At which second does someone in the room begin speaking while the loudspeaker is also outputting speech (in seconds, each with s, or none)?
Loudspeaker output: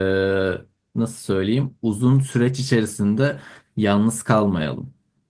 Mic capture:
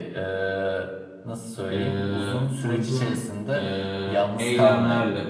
1.7 s